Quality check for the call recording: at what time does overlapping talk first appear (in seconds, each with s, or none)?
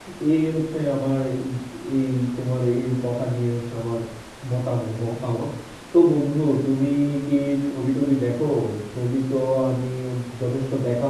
none